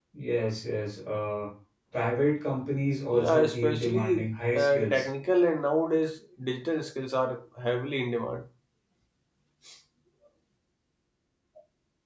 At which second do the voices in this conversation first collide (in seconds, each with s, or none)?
3.1 s